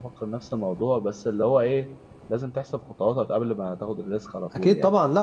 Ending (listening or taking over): taking over